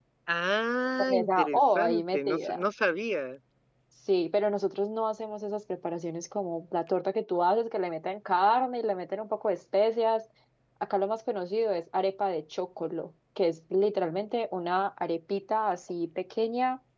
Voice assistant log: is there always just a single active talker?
No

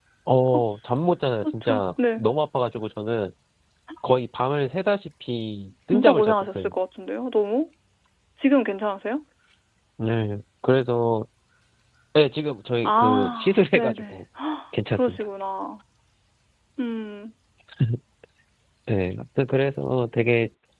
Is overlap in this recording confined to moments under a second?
No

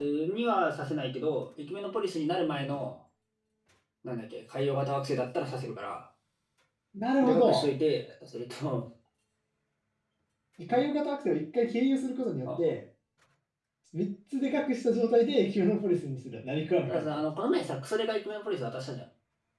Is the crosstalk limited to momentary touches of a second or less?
Yes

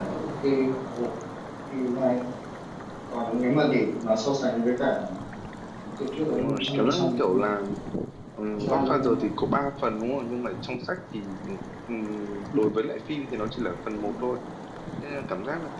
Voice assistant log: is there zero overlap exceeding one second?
No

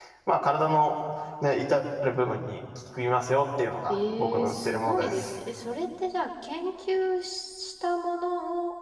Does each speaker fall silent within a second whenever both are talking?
No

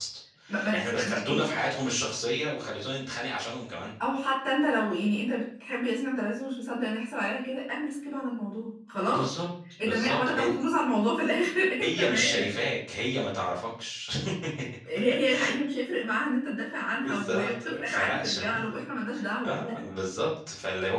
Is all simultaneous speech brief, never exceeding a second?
No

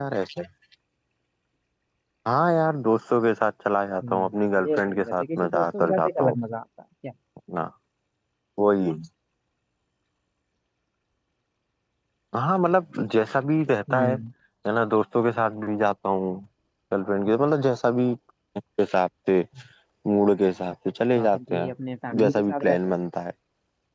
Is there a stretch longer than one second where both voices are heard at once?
Yes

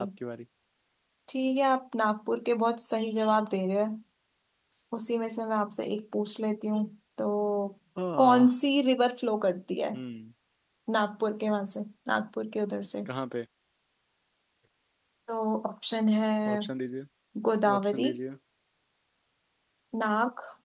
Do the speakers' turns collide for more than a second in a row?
No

